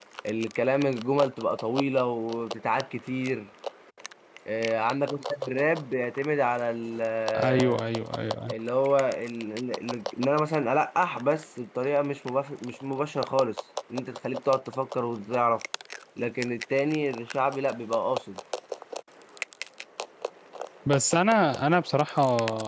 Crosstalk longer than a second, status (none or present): none